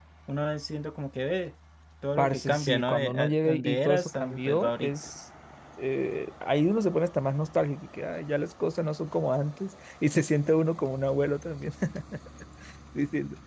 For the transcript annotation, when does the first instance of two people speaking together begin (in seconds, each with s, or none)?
2.2 s